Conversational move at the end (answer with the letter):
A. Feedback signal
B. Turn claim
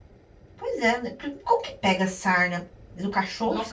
B